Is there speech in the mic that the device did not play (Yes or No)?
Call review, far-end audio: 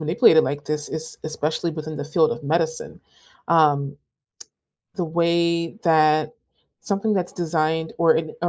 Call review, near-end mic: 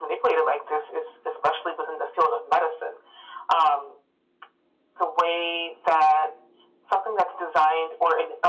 No